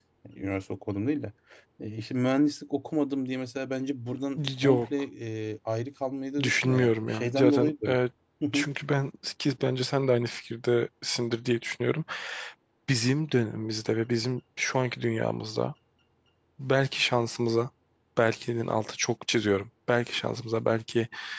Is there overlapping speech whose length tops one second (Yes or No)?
Yes